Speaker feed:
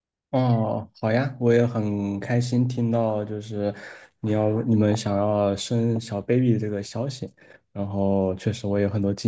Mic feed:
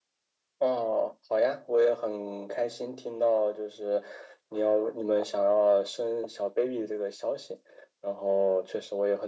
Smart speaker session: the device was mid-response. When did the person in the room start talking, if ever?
none

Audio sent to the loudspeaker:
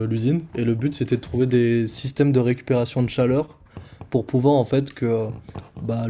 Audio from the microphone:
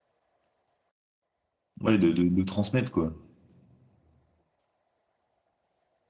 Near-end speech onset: 2 s

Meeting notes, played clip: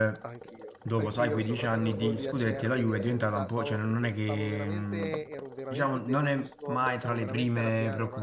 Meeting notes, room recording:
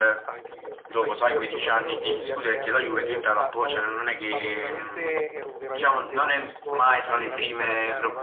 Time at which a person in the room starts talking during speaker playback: none

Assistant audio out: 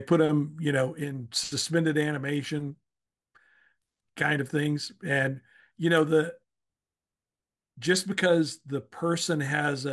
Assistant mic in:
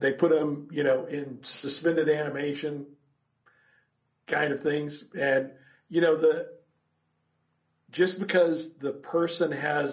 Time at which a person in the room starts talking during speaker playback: none

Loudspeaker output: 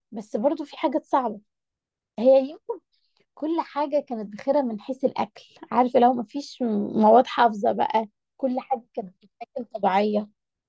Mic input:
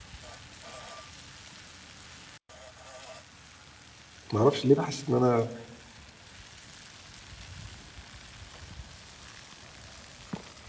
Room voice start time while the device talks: 4 s

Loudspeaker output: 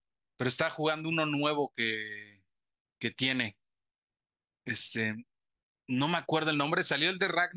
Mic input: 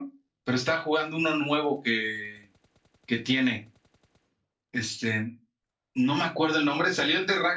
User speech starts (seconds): none

